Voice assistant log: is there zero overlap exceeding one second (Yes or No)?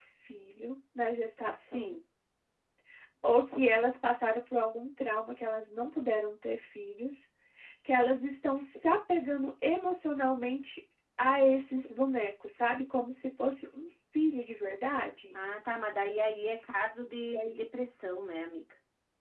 Yes